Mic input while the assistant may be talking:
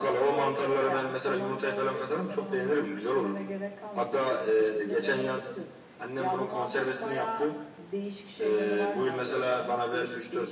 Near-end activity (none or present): none